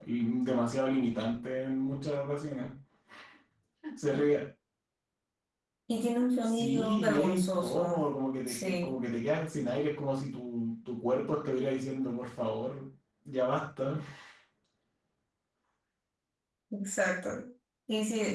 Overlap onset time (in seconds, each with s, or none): 6.4 s